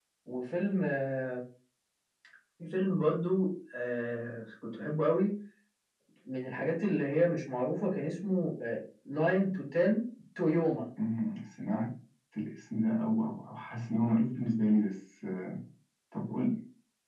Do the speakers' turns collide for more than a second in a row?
No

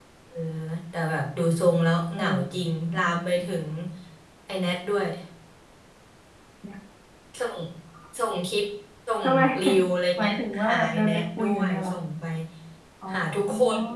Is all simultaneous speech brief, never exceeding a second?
No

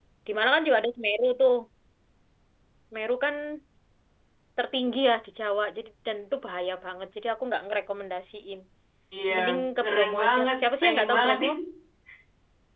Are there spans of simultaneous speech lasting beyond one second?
Yes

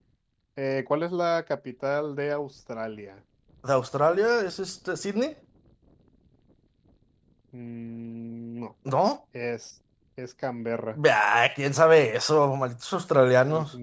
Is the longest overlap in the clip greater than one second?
No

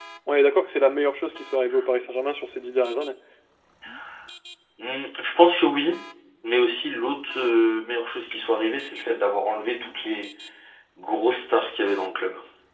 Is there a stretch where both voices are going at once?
No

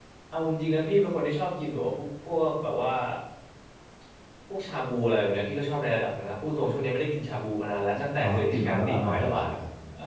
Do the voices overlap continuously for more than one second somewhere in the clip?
Yes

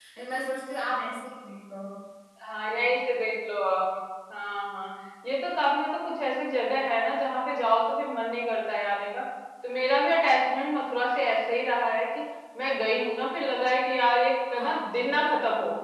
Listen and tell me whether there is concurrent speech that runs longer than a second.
No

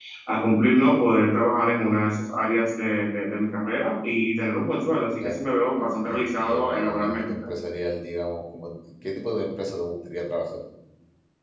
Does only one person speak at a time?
No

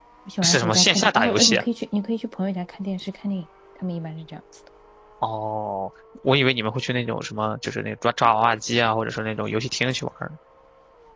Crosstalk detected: Yes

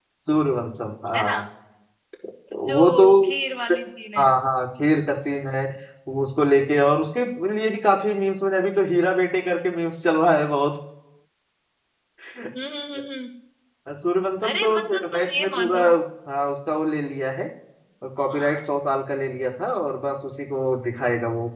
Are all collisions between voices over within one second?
No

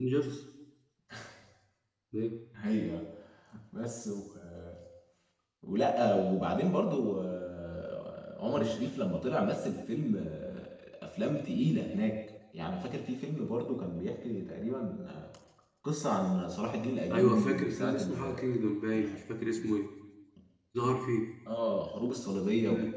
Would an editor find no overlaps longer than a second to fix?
No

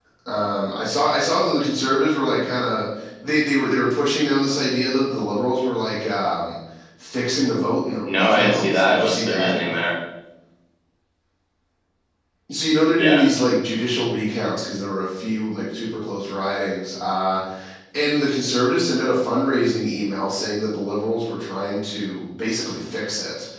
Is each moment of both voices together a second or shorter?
No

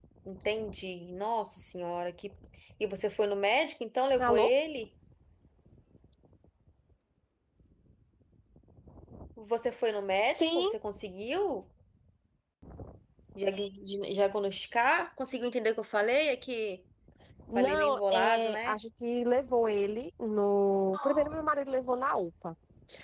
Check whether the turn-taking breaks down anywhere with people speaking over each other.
Yes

